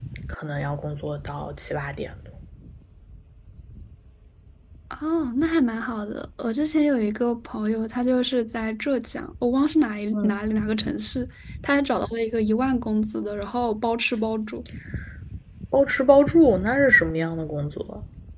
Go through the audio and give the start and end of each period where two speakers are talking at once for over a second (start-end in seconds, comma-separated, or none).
none